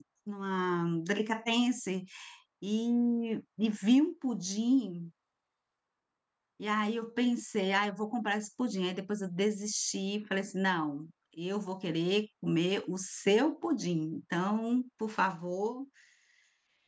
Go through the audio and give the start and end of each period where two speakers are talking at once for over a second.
none

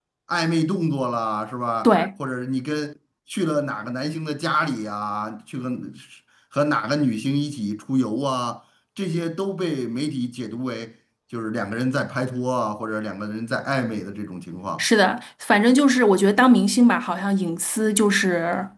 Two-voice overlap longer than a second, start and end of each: none

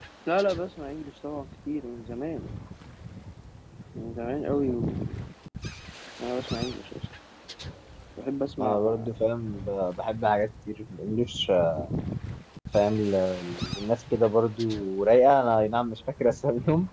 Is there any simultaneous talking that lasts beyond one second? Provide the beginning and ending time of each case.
none

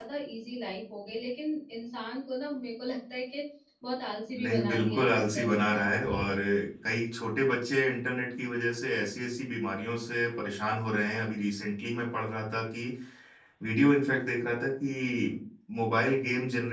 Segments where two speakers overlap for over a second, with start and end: 4.4-5.8

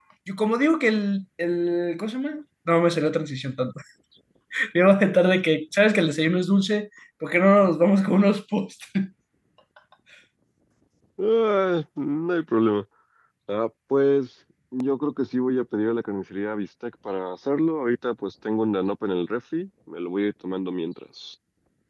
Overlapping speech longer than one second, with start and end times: none

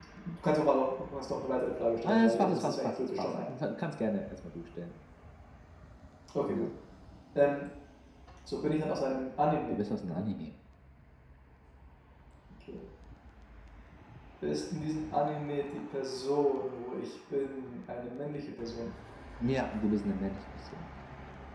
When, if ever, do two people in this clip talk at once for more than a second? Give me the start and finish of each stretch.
2.0-3.3

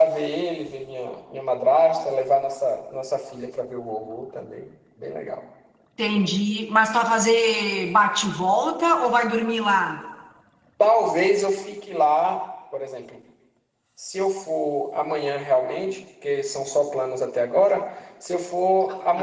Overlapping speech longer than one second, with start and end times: none

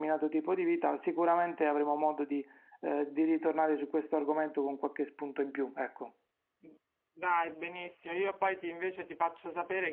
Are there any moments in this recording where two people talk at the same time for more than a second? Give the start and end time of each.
none

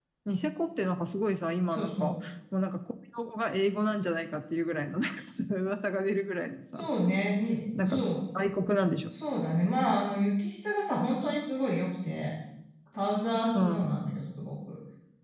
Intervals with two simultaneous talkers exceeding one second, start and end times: none

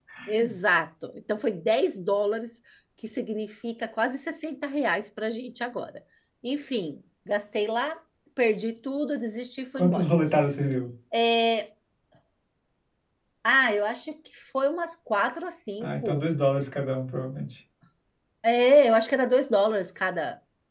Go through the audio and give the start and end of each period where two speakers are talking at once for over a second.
none

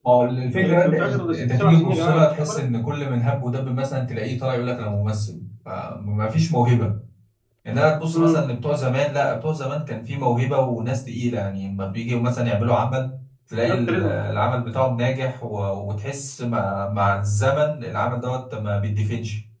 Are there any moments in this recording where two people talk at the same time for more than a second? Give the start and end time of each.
0.6-2.6

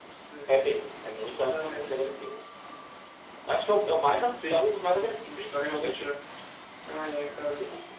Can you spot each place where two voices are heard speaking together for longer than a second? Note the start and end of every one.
4.5-6.2

